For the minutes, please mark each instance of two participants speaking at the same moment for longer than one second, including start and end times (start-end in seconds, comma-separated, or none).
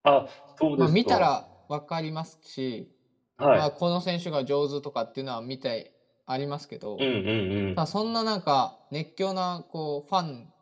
none